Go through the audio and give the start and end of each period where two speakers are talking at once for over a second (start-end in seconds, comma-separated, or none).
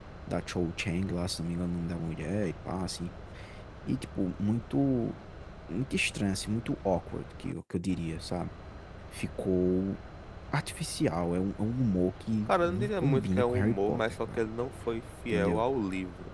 12.5-14.4